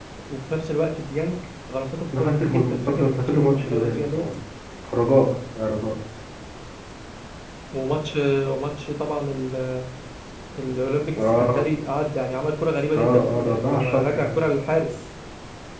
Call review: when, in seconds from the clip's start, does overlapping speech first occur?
2.2 s

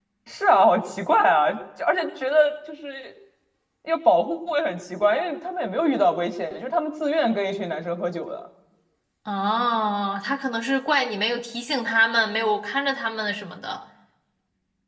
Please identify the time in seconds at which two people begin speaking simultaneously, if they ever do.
none

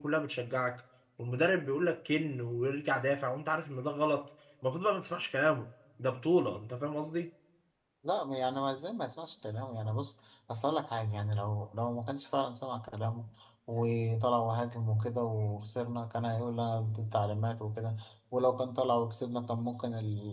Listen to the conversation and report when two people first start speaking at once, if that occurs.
none

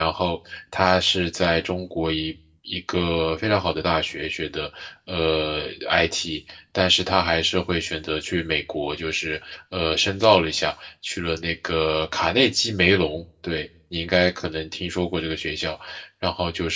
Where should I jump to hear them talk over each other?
none

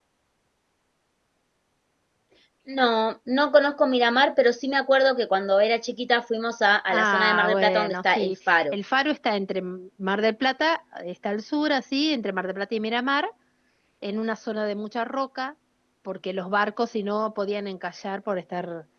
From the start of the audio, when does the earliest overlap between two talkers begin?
6.9 s

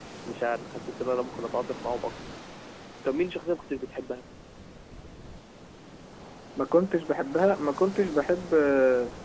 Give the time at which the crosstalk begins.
none

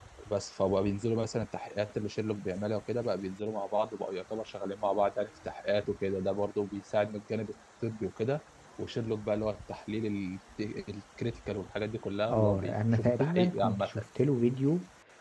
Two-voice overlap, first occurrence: 12.3 s

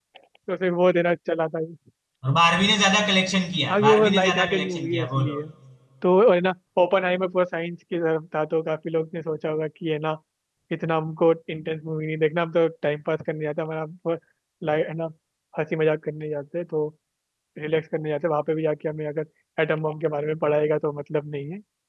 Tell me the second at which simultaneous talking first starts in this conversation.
3.7 s

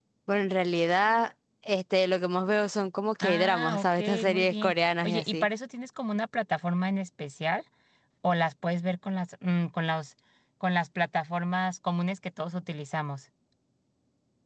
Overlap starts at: 3.2 s

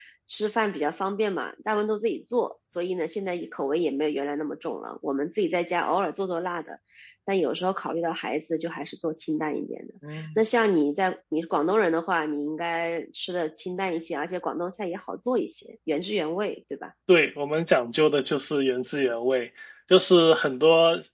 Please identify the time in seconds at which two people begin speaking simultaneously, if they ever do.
none

